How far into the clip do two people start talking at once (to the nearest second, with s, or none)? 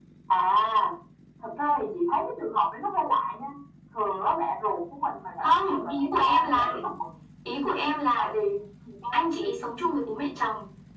5 s